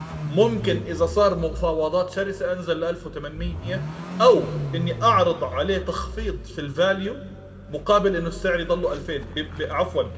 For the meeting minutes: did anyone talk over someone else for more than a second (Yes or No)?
No